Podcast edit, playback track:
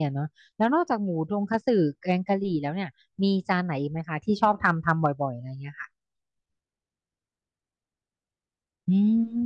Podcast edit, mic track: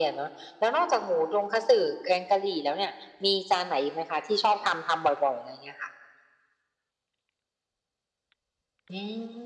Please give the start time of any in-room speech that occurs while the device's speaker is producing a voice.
none

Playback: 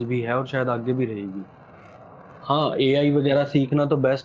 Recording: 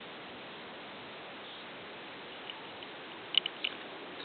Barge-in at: none

